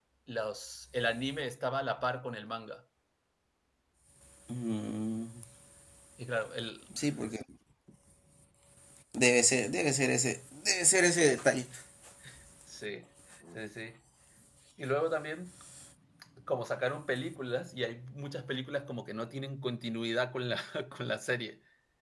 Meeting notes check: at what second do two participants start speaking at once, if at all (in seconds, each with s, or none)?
none